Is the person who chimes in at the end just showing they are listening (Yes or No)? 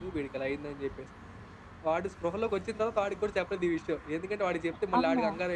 Yes